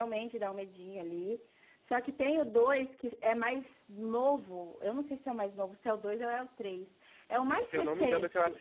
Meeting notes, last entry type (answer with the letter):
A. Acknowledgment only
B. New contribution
B